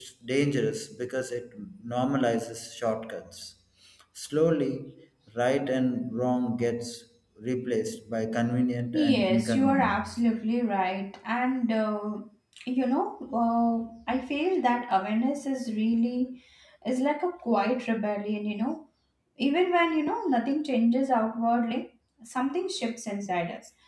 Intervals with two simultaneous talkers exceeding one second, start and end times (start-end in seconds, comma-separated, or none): 8.9-10.2